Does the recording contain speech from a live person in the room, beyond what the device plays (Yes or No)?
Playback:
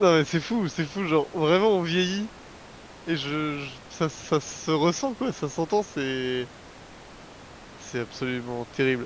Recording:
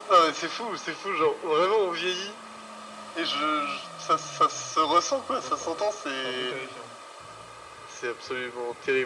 Yes